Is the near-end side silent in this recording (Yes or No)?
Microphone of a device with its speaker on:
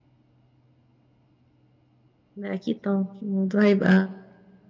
No